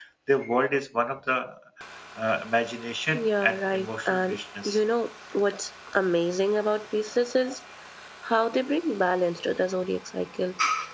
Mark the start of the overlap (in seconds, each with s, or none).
3.1 s